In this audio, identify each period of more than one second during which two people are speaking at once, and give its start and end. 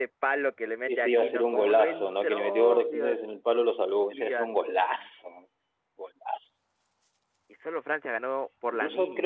0.9-3.1

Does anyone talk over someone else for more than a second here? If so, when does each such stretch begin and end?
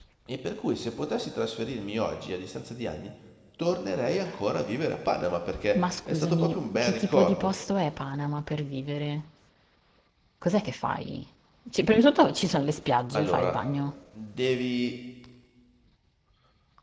5.7-7.5

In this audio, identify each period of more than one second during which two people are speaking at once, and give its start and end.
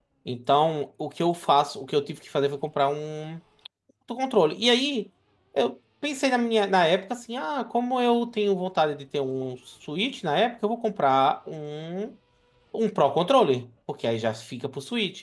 none

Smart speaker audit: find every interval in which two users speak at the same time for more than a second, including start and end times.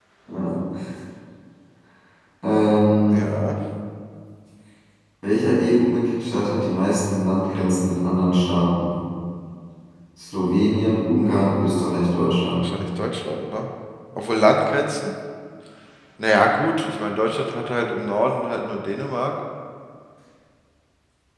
none

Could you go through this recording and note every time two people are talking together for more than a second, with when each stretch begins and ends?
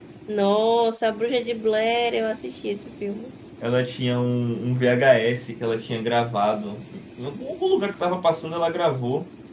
none

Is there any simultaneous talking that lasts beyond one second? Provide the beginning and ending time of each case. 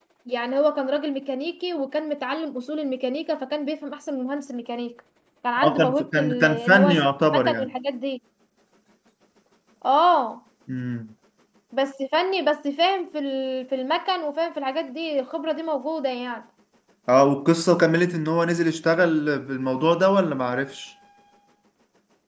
5.6-7.7

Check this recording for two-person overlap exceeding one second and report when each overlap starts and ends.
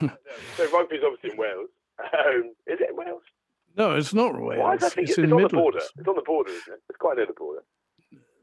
4.5-5.9

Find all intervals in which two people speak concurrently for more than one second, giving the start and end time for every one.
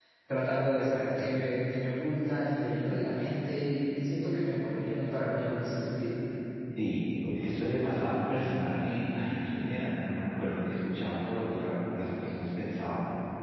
none

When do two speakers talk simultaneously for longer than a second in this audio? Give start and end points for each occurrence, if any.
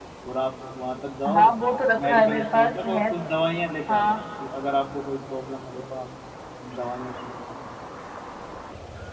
2.0-3.2

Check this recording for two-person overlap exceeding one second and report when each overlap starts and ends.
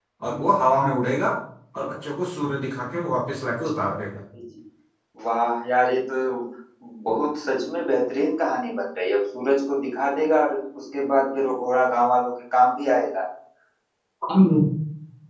none

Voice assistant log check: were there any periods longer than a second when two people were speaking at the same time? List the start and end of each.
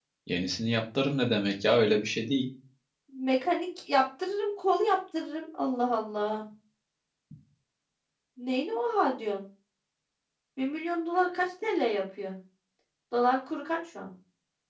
none

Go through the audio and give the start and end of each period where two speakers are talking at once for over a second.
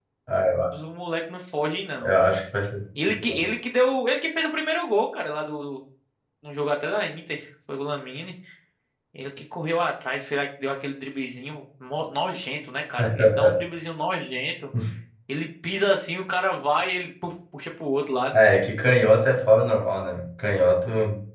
none

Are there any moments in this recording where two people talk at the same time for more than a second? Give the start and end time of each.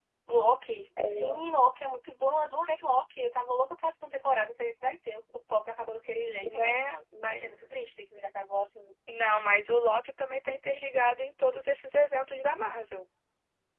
none

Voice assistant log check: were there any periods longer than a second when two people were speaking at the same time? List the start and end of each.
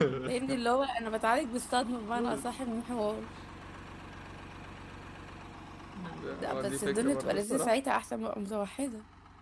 6.2-7.7

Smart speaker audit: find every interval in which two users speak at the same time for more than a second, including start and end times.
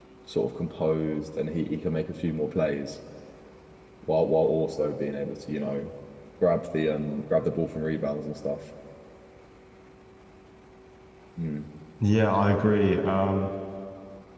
none

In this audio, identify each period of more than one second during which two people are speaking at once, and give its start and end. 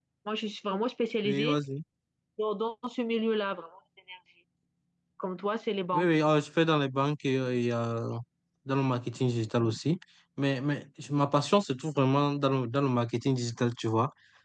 none

